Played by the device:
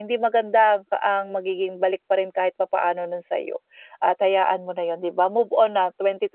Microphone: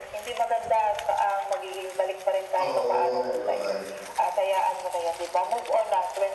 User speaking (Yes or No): Yes